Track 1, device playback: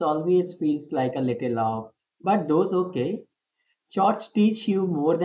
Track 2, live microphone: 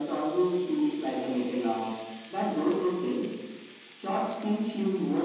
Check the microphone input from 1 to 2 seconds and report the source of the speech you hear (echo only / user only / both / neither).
echo only